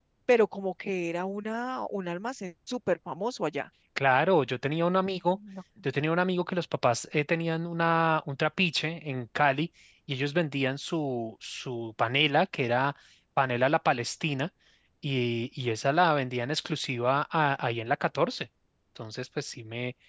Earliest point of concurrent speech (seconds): none

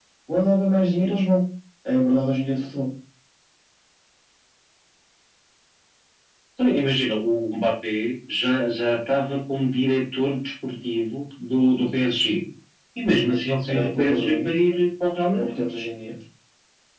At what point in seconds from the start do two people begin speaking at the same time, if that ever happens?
13.3 s

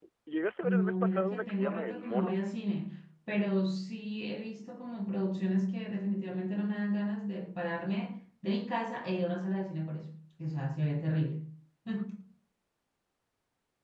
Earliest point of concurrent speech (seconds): 0.6 s

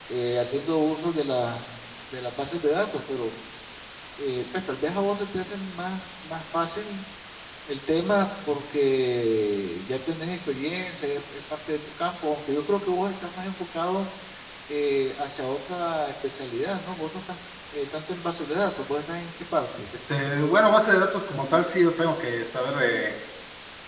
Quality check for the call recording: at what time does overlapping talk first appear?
none

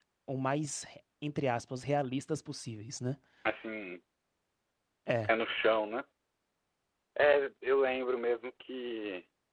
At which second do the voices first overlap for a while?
none

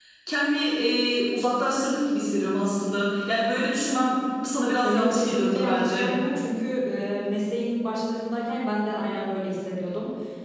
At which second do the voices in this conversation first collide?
4.8 s

